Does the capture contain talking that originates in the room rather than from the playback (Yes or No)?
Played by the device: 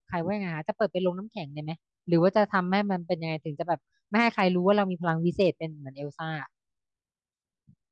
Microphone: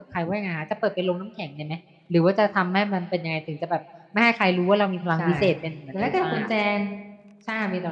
Yes